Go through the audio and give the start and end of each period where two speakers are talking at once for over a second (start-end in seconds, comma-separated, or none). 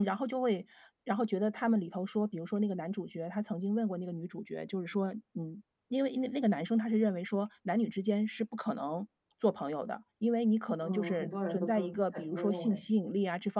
10.8-12.8